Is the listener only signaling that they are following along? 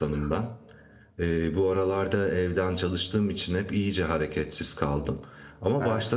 Yes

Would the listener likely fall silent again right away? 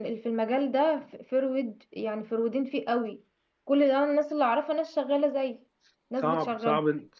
No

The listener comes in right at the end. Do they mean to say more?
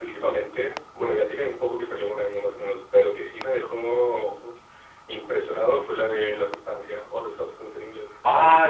Yes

